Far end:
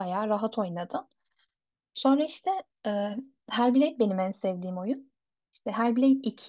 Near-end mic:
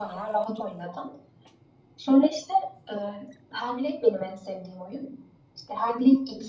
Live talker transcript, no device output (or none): none